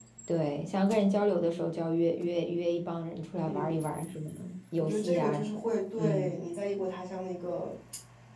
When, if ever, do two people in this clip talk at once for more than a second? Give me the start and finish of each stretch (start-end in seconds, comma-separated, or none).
4.8-6.3